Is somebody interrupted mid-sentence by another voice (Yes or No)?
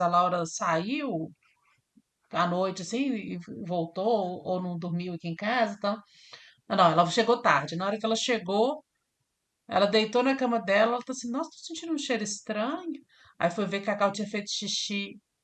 No